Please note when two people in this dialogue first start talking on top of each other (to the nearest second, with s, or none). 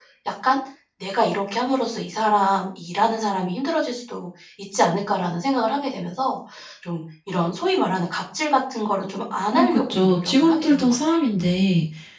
10 s